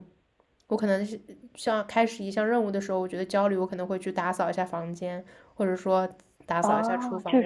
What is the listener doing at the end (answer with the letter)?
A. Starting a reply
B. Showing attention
A